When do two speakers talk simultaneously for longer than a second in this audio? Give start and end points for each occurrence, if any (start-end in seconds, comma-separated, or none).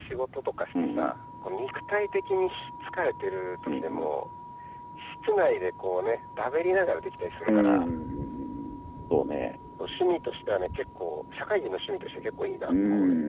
none